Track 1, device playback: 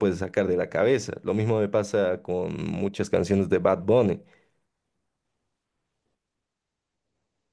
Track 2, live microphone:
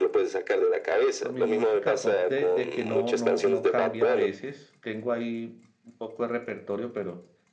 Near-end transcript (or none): Con mi música pop de, de que no, no, no cambia a veces. Tengo ahí un poco de repertorio, pero